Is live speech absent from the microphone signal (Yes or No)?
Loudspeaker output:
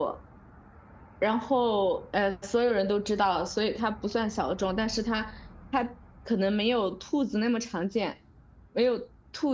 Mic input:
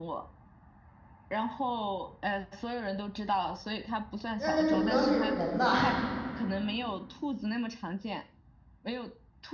No